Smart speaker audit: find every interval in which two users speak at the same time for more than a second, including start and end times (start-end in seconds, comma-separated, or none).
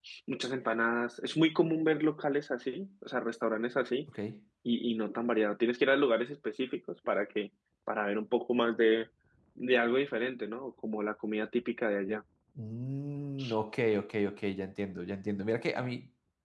none